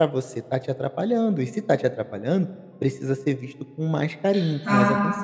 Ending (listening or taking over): taking over